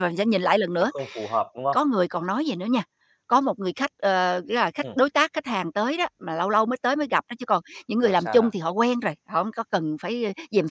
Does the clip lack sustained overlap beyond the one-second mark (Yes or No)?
Yes